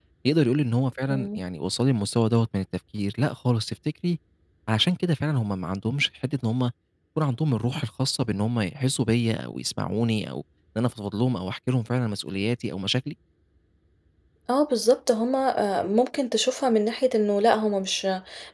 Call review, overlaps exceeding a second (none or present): none